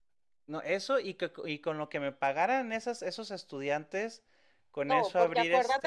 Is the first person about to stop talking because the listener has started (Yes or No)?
Yes